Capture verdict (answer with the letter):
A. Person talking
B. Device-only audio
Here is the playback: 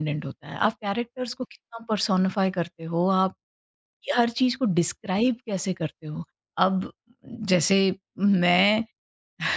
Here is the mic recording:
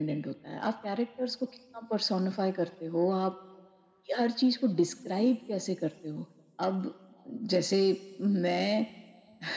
B